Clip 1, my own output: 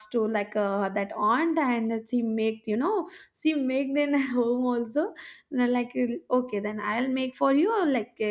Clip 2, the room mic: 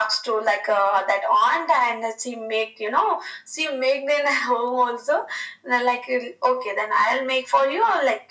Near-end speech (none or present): none